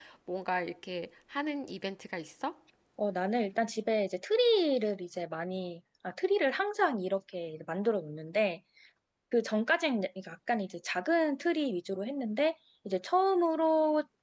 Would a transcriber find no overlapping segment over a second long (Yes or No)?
Yes